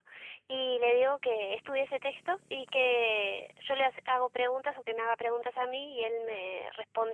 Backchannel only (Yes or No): Yes